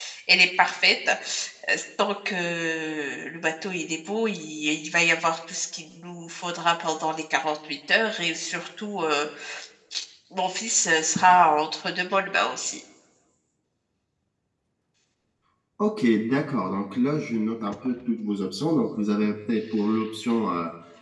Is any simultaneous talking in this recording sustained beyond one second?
No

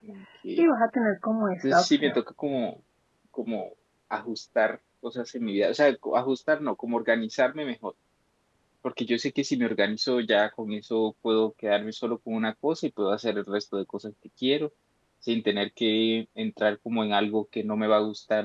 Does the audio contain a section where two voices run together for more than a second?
No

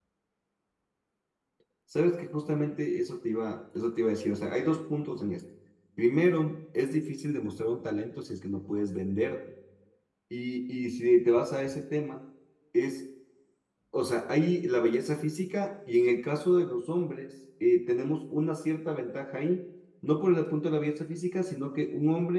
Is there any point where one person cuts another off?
No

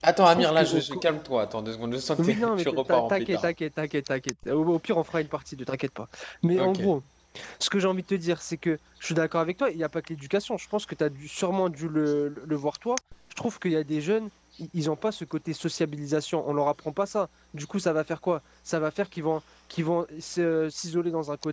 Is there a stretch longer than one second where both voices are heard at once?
Yes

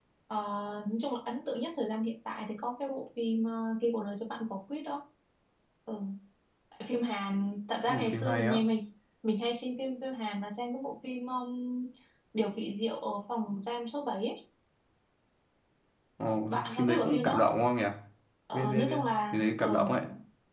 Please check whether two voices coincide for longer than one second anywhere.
Yes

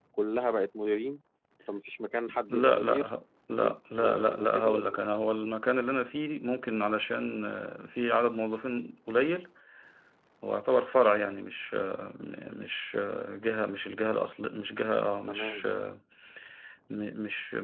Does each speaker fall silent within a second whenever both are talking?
No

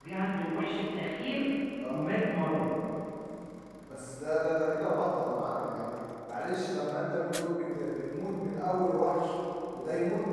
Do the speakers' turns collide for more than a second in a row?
No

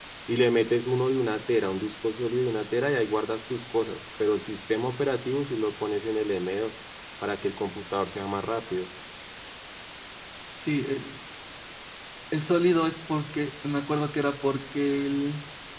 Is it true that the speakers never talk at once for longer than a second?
Yes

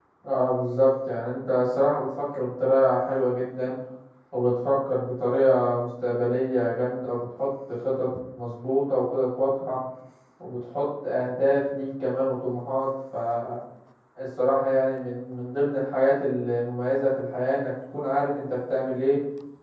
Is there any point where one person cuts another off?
No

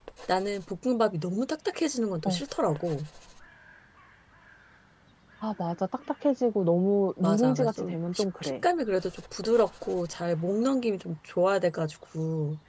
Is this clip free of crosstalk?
No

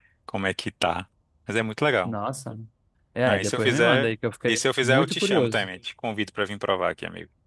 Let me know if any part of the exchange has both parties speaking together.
Yes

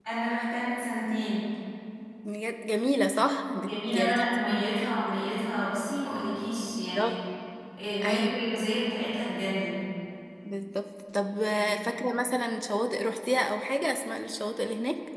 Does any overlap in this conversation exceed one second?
Yes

